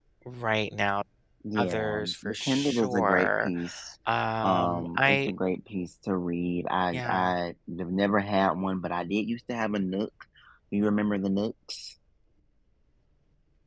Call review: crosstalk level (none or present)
present